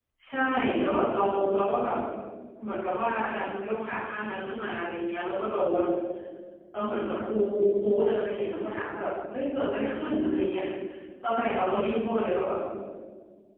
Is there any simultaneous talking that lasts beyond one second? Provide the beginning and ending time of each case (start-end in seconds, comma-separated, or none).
none